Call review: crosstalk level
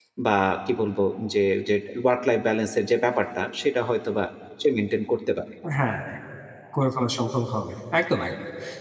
none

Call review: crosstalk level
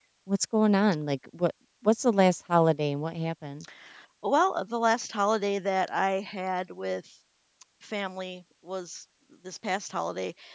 none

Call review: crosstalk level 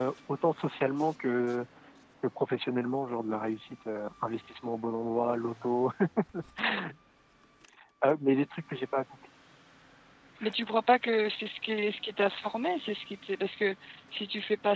none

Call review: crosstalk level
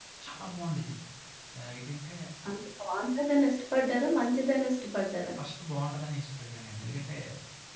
none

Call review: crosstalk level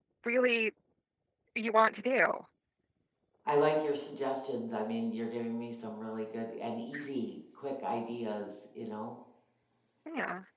none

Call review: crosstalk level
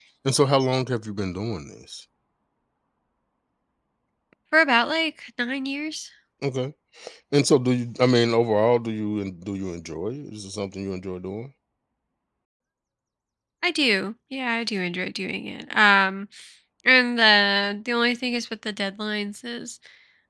none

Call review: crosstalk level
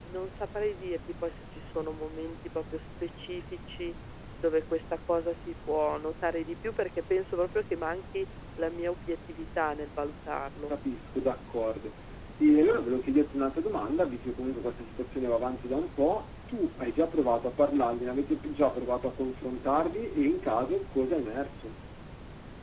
none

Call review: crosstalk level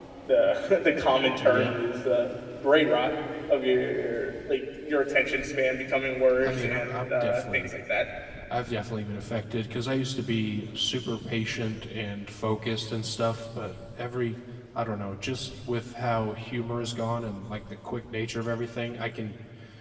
present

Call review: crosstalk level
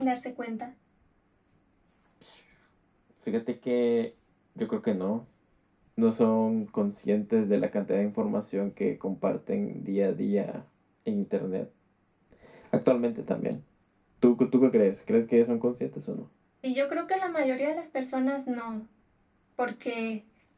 none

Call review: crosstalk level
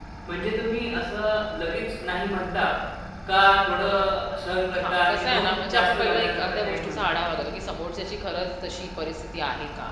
present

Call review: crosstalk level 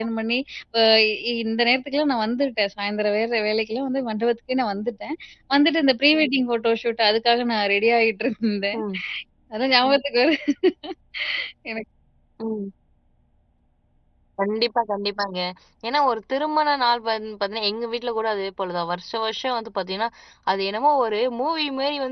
none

